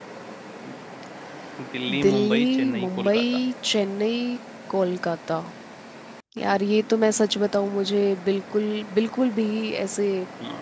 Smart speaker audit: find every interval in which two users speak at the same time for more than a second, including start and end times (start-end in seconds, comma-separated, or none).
2.0-3.2